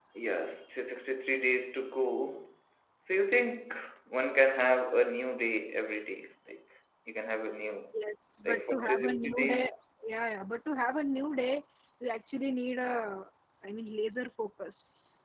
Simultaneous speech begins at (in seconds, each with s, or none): 8.4 s